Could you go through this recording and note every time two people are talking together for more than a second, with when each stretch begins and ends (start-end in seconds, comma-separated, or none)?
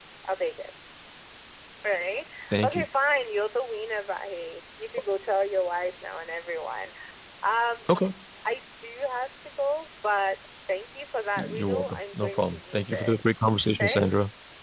11.4-13.2